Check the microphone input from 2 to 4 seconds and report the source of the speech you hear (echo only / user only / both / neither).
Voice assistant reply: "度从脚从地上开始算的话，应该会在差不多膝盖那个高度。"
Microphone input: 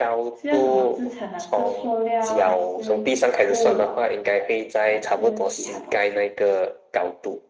both